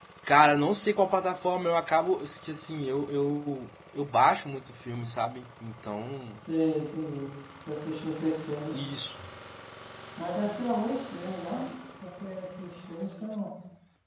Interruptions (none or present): none